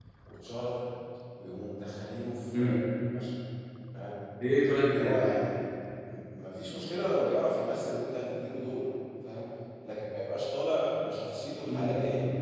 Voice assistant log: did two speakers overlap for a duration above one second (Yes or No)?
No